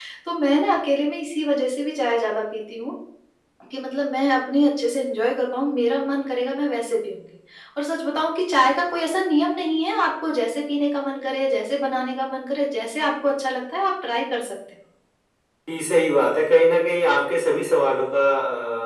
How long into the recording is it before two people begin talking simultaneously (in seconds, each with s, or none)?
none